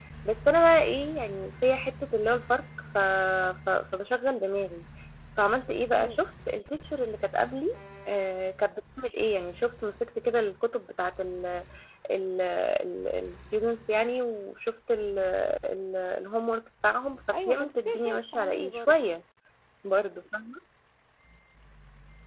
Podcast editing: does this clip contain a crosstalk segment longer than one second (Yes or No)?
Yes